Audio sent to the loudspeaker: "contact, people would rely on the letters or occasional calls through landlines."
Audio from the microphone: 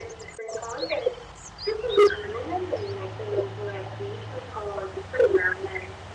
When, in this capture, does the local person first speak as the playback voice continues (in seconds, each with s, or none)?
none